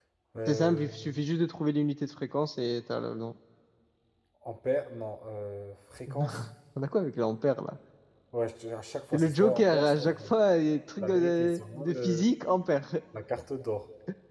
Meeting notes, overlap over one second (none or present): present